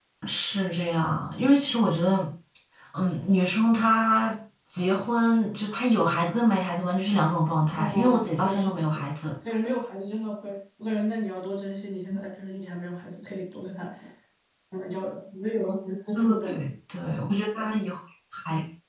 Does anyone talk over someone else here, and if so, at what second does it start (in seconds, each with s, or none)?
7.8 s